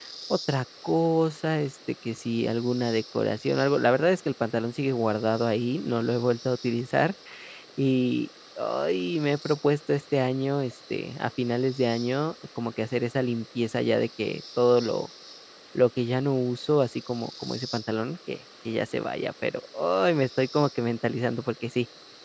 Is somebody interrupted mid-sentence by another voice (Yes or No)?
No